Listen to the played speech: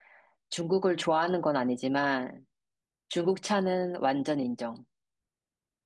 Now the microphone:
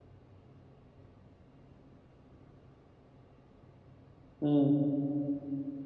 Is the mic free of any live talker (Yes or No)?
No